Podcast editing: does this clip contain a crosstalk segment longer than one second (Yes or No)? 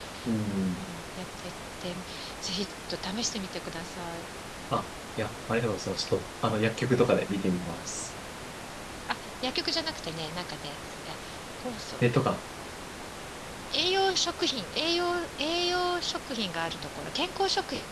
No